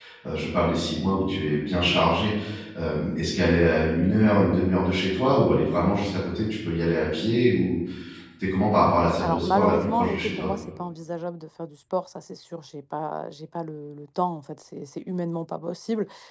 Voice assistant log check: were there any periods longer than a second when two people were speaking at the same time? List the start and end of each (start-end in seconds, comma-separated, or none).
9.2-10.5